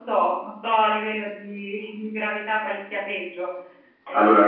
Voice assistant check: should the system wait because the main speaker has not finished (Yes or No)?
No